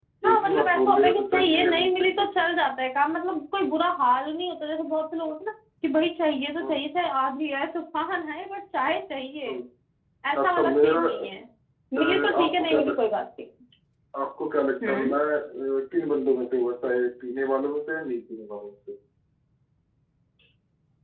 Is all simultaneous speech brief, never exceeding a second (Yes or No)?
No